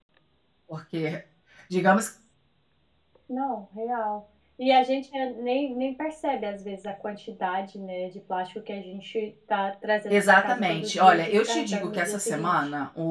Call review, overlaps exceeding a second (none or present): present